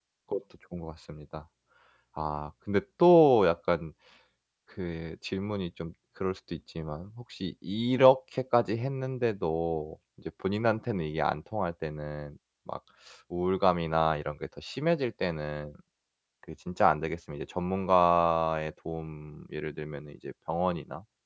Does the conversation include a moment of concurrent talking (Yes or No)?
No